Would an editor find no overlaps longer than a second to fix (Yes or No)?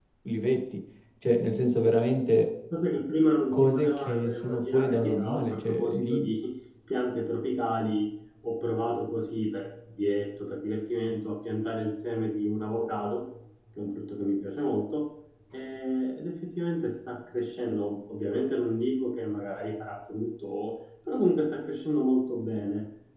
No